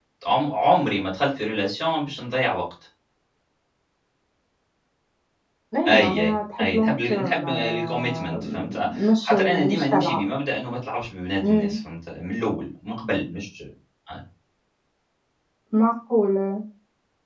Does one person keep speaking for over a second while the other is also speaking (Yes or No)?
Yes